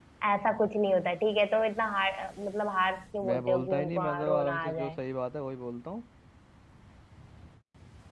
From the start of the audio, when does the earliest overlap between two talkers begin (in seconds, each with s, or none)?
3.2 s